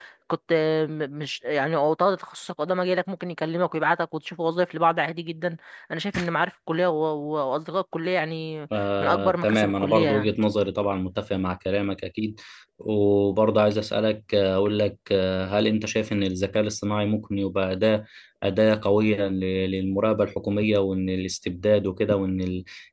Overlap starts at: 9.0 s

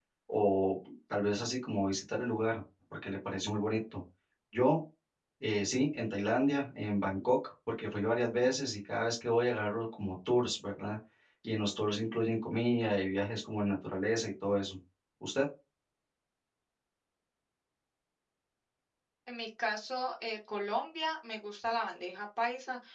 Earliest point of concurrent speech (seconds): none

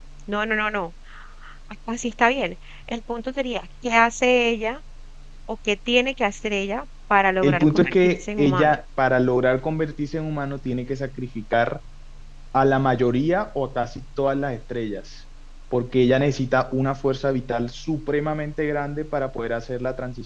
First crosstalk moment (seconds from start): 7.4 s

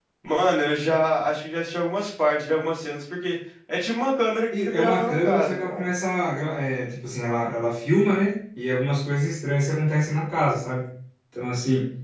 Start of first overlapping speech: 4.5 s

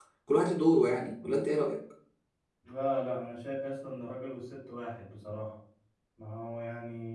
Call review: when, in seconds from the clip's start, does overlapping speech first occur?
none

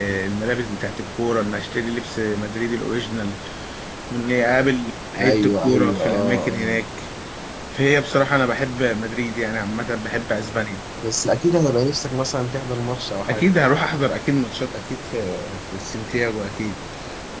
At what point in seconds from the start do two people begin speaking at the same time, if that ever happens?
5.2 s

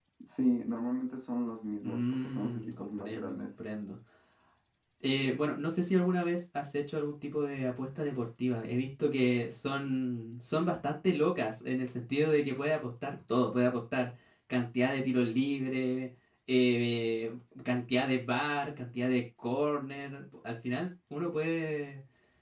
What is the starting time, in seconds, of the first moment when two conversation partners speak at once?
1.8 s

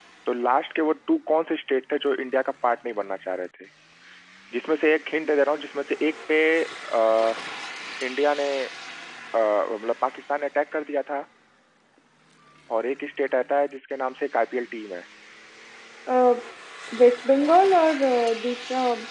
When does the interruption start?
none

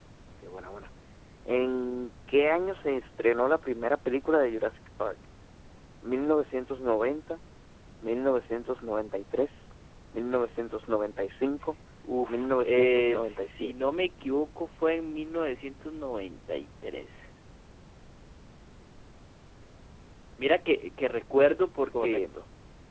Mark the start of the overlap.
12.3 s

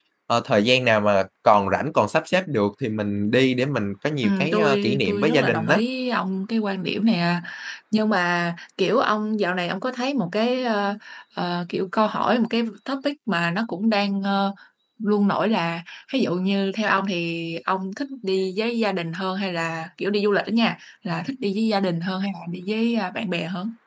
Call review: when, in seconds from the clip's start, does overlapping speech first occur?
4.2 s

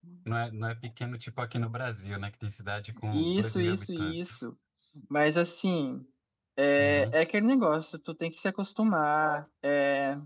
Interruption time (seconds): 3.1 s

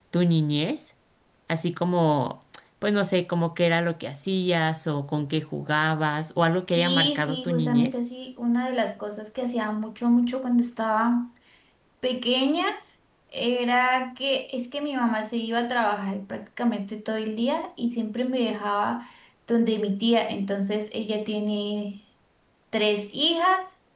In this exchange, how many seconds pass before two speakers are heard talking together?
6.8 s

